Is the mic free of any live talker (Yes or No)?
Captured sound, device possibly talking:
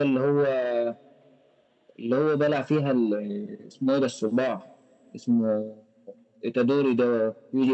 Yes